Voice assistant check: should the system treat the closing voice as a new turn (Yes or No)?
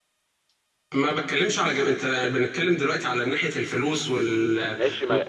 Yes